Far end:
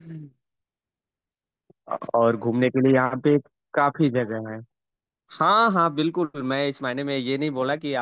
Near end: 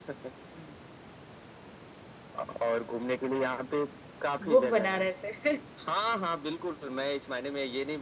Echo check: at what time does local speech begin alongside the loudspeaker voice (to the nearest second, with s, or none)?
4 s